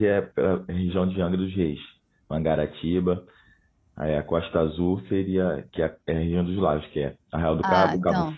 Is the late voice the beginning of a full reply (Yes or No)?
No